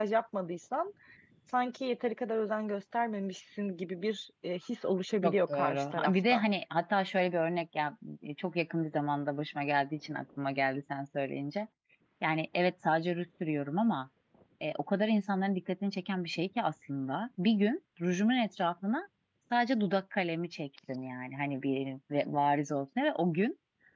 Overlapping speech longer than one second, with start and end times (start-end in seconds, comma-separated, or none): 5.2-6.4